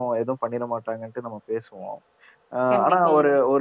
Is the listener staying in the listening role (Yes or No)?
Yes